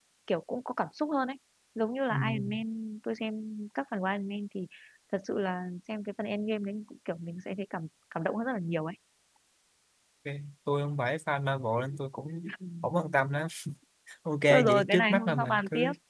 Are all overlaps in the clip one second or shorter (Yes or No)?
No